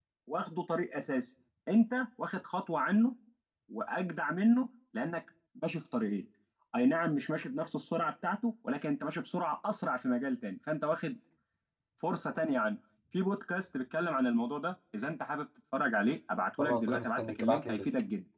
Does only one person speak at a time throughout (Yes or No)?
No